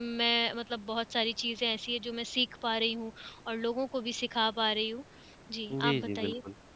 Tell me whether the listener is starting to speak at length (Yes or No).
Yes